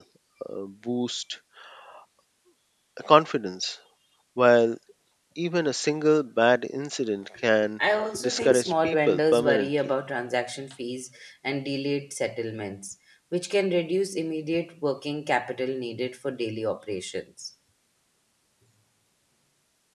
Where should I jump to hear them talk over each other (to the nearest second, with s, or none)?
8 s